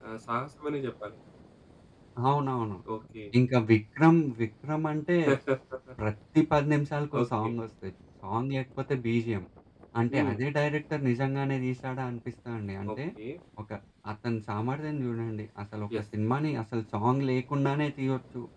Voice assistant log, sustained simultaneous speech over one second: none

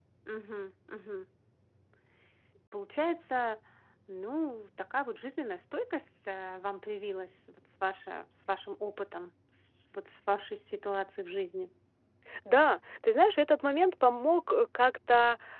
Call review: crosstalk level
none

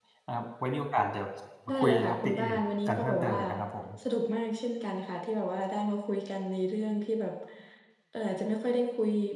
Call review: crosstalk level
present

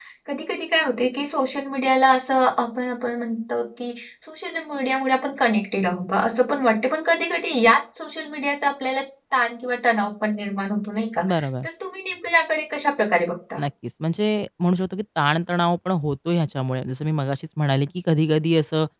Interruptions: none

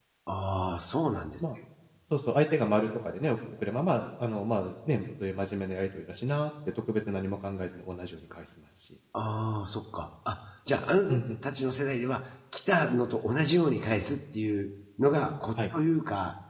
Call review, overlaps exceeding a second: none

